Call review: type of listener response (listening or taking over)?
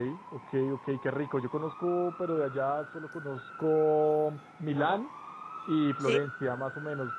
listening